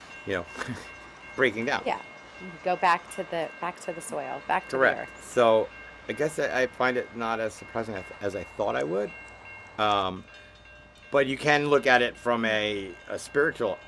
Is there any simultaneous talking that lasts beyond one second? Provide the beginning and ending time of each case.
none

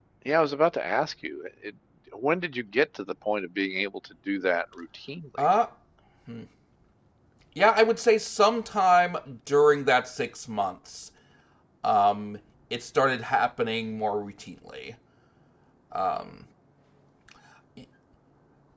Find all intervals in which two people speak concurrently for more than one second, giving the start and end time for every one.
none

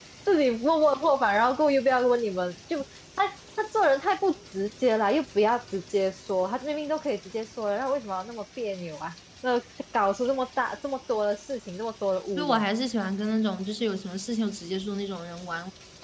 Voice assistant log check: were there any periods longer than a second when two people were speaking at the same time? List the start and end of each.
none

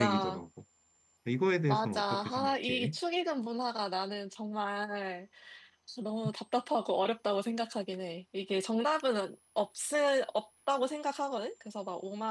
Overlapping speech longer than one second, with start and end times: 1.7-3.0

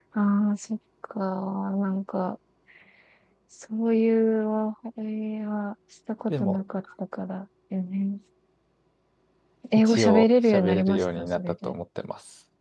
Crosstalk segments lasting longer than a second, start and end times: 9.8-11.7

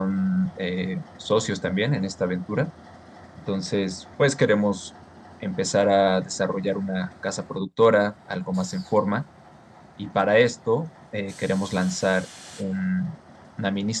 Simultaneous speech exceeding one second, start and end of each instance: none

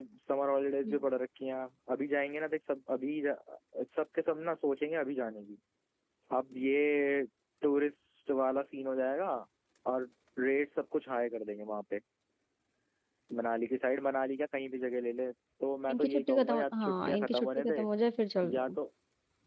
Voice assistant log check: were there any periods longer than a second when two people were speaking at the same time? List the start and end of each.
15.9-17.8

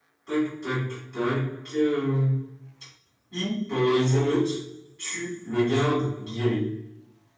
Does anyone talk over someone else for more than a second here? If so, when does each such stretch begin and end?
none

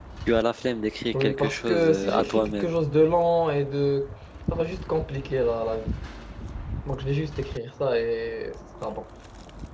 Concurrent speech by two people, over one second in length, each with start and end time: 1.1-2.7

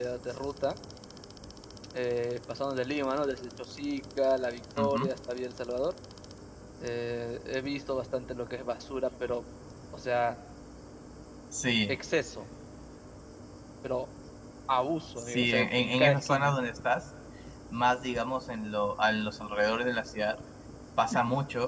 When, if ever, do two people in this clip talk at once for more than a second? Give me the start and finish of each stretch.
15.2-16.6

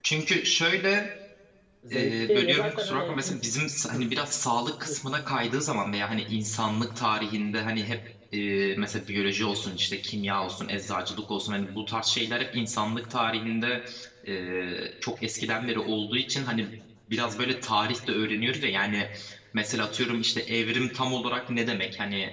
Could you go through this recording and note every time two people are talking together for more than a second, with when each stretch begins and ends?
1.9-3.4

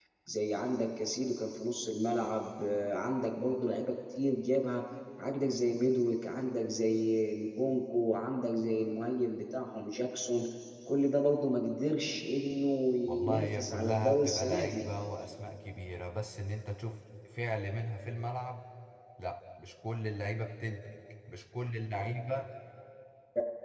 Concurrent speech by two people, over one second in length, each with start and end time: 13.1-14.8

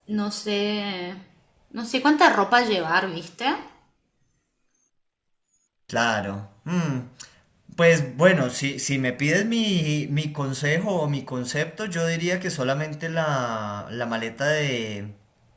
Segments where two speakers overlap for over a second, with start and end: none

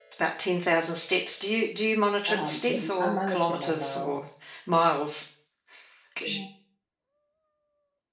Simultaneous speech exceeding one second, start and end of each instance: 2.3-4.2

